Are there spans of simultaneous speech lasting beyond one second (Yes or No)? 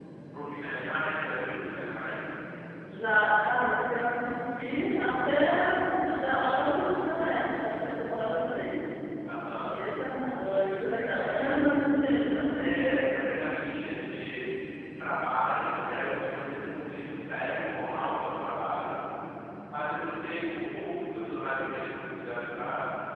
No